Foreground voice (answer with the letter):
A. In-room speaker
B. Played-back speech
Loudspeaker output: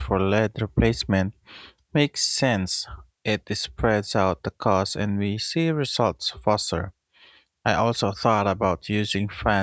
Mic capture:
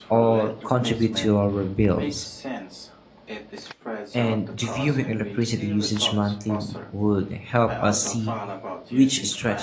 A